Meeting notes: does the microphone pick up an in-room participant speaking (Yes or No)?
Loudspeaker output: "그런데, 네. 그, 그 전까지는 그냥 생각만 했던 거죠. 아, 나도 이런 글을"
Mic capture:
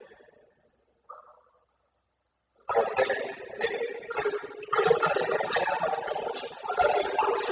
No